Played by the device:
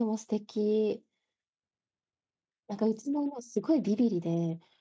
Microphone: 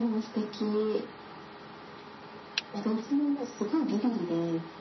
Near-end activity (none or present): none